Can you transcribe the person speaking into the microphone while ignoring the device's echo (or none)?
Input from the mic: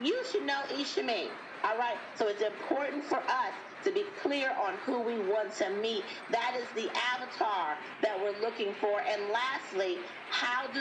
none